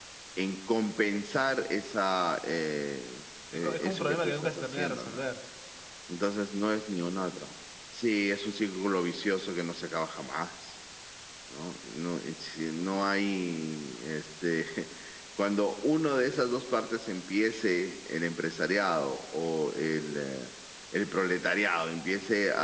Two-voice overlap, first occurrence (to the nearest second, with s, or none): 4 s